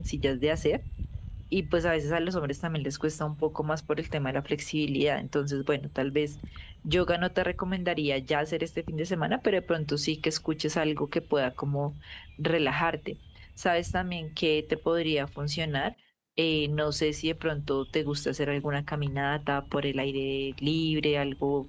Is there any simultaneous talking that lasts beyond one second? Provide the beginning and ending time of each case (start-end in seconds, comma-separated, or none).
none